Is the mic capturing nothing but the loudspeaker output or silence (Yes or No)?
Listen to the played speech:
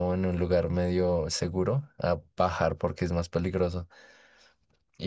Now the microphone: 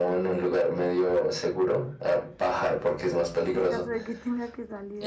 No